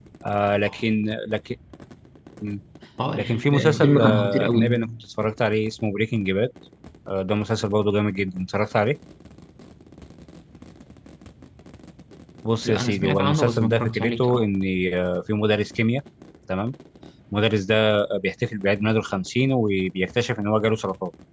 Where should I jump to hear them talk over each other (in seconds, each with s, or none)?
3.1 s